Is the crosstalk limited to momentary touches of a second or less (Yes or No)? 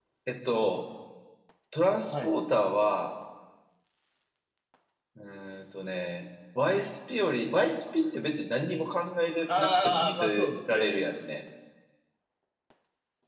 No